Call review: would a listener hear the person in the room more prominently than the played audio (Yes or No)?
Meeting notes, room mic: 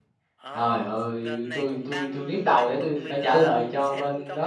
Yes